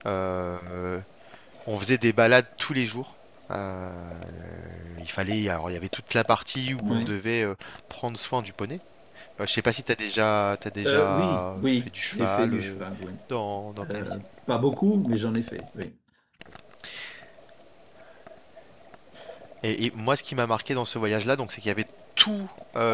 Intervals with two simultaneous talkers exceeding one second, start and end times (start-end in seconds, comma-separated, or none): 10.8-12.8